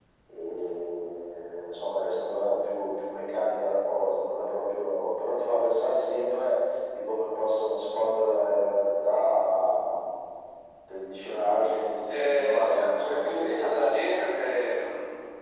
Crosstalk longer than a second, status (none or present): present